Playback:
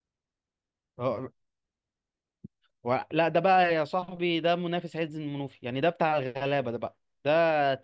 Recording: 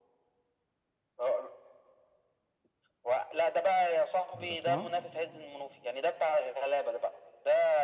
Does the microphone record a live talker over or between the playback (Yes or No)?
Yes